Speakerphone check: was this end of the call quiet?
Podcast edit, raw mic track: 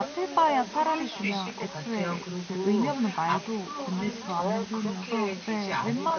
No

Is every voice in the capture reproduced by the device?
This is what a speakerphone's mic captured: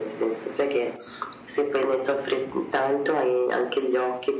Yes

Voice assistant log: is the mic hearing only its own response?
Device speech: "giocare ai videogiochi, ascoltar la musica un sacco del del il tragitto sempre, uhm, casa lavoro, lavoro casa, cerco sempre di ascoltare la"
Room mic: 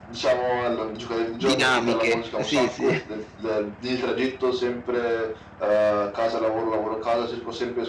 No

